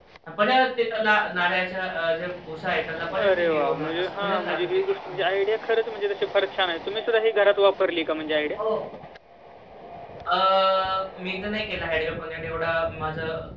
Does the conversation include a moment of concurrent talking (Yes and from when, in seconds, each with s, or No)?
Yes, from 3.1 s